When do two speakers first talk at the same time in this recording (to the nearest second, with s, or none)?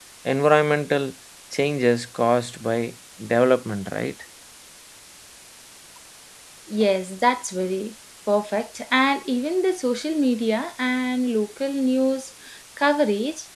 none